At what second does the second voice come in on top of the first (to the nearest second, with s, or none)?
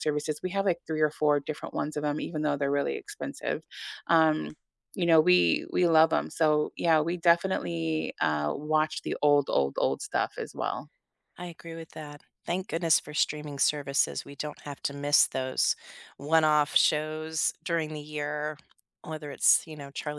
none